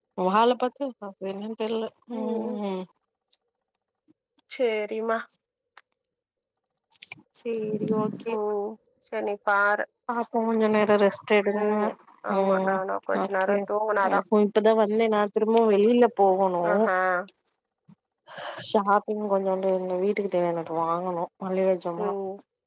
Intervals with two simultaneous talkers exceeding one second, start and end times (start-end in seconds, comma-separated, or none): none